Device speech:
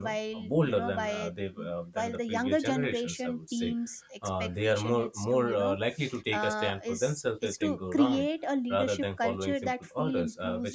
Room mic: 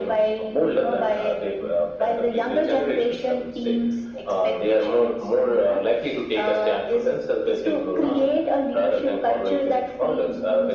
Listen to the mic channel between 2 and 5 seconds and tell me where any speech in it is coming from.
echo only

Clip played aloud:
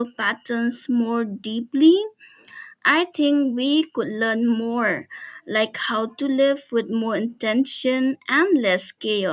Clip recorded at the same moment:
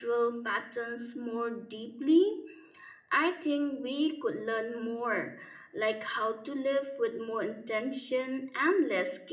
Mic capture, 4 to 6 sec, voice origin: echo only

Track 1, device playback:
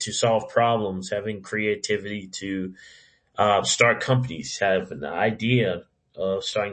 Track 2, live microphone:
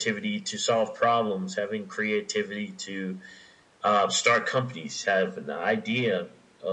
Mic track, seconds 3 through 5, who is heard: echo only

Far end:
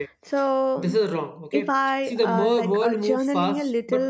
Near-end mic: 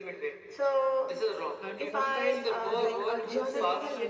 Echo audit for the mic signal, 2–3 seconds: both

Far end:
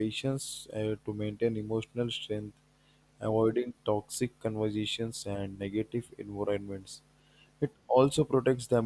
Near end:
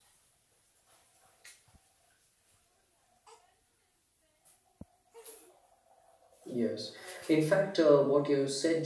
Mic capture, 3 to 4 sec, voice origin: neither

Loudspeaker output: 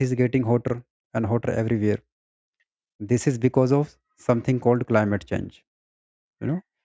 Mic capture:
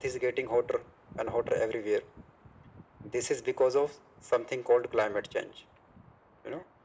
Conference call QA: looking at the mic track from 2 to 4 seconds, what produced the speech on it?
echo only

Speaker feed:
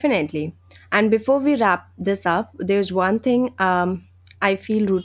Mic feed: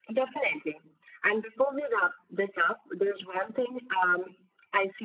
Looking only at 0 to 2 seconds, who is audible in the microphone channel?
echo only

